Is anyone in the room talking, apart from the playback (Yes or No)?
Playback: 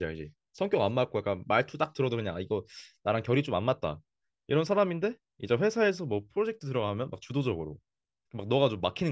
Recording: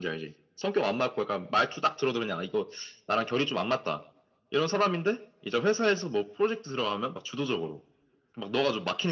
No